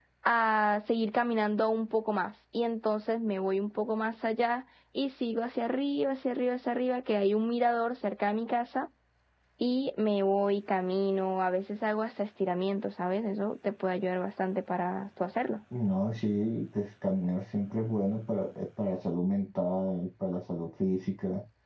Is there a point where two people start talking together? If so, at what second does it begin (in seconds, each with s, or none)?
none